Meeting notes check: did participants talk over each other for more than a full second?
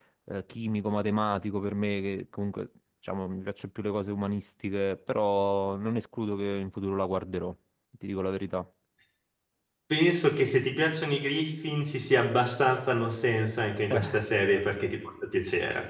No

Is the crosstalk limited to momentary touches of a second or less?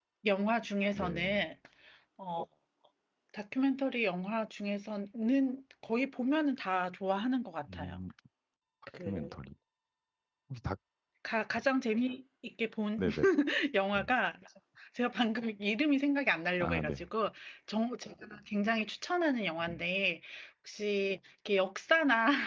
Yes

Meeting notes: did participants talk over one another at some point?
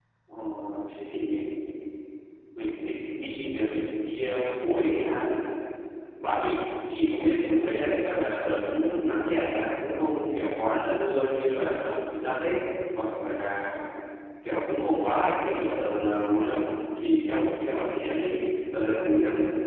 No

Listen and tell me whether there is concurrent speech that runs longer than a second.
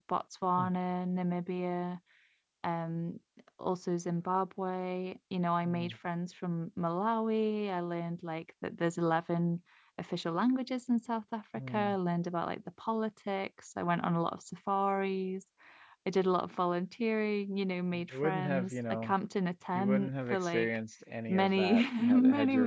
Yes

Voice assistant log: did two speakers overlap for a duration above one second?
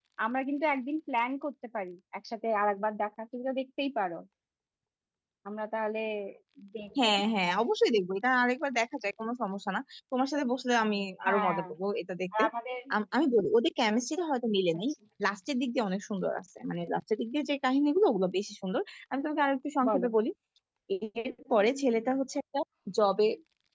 No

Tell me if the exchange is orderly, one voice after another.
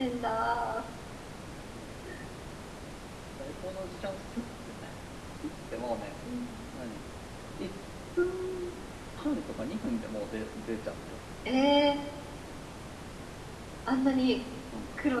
Yes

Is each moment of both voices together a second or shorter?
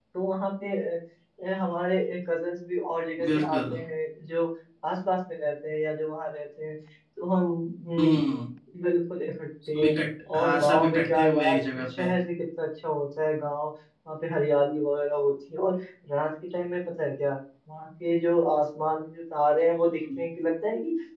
No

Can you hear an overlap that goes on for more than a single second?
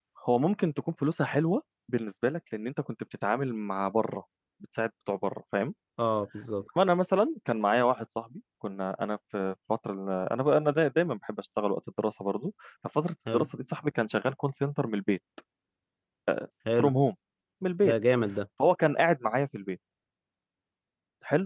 No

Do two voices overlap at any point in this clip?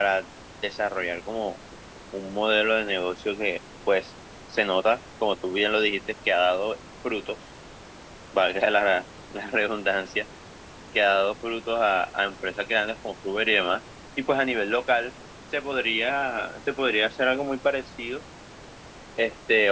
No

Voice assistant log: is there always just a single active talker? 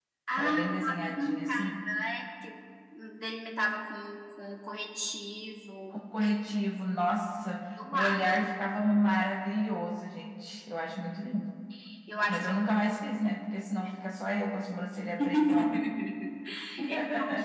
No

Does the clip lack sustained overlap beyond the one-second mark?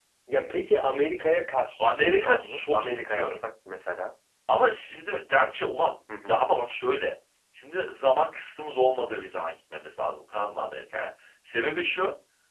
No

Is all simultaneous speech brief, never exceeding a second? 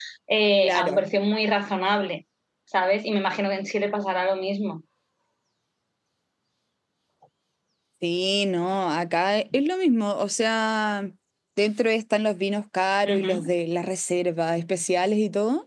Yes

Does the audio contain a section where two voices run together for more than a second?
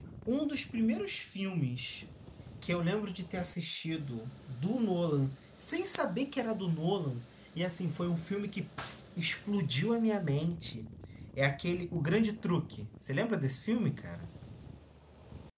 No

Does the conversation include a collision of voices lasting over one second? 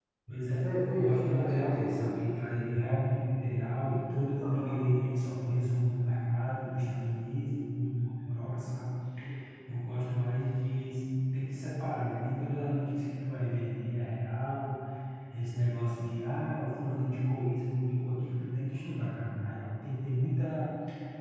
Yes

